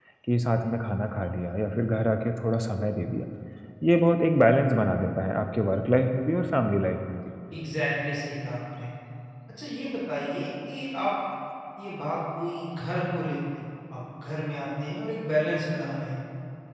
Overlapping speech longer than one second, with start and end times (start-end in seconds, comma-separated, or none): none